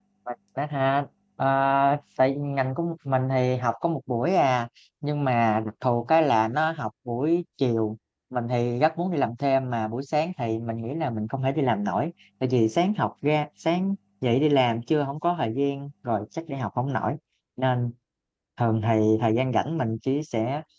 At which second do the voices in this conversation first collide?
none

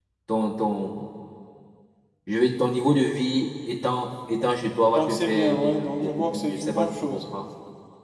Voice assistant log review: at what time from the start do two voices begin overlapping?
5 s

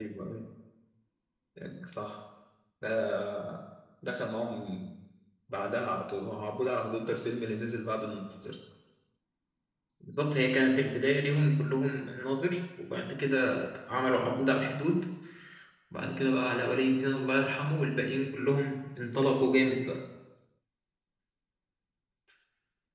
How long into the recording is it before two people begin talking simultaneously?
none

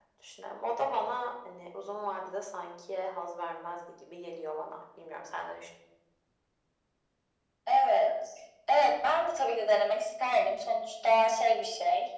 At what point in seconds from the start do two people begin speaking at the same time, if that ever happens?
none

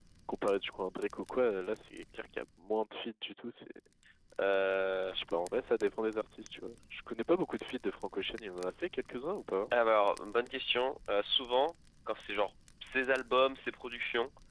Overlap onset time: none

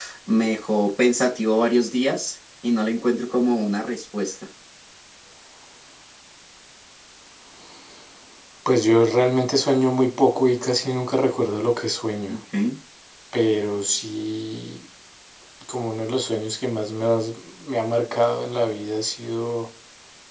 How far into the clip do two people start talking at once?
none

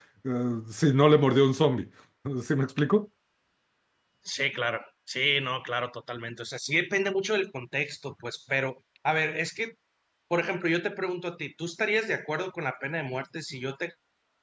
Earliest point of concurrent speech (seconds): none

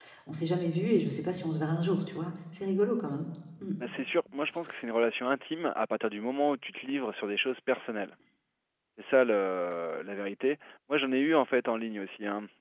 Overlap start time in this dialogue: none

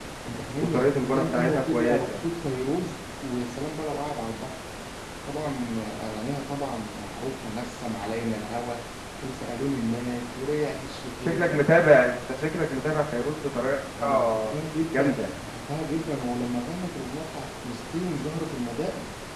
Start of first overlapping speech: 1 s

